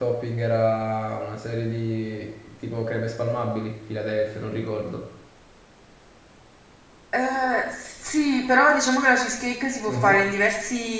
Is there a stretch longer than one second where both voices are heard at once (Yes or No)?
No